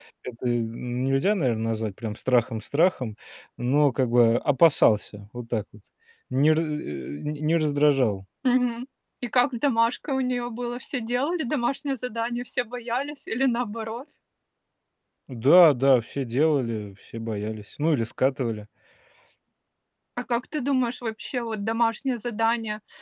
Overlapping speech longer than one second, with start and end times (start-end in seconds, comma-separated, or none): none